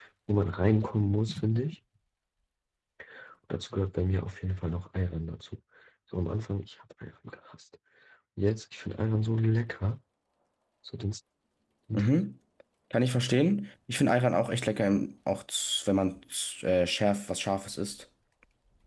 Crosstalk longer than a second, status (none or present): none